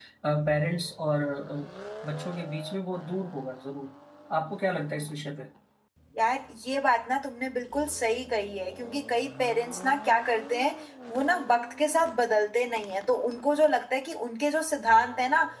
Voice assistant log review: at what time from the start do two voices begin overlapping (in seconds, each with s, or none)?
none